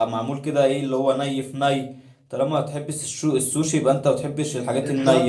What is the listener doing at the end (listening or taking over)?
taking over